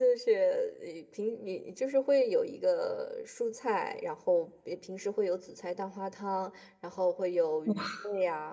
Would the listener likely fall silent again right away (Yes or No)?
Yes